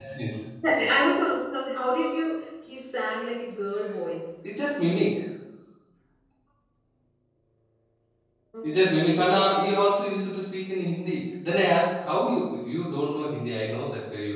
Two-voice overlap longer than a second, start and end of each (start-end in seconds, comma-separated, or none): 8.6-9.9